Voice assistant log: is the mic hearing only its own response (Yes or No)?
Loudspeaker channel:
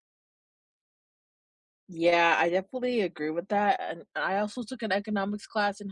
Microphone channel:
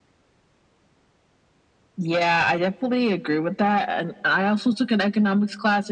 Yes